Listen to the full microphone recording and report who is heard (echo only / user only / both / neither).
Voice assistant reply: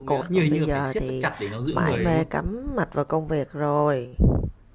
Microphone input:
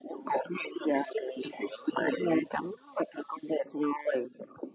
echo only